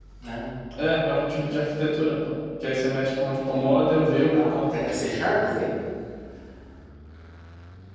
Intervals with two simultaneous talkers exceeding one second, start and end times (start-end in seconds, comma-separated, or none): 3.5-4.9